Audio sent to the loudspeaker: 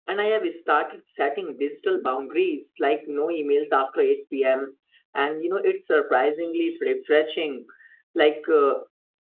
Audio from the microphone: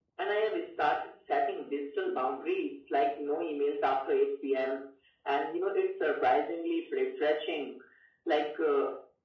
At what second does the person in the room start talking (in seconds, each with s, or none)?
none